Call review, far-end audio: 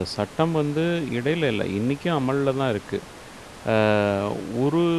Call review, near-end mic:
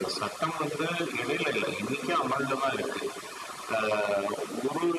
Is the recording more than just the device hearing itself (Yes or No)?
No